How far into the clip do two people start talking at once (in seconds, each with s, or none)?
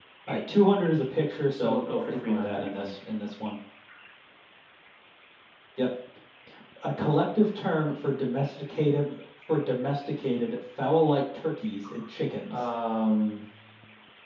1.5 s